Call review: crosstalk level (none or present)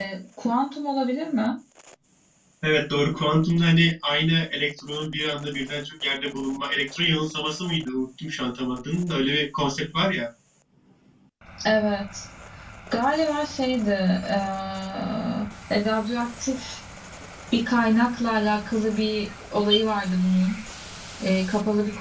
none